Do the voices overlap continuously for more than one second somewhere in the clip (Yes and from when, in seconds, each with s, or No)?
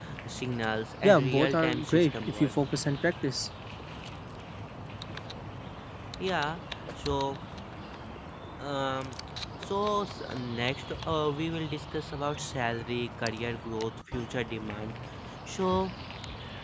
Yes, from 1.0 s